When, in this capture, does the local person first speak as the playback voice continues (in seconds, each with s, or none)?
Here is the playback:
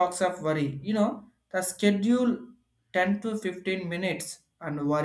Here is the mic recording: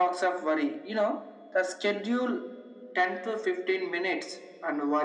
none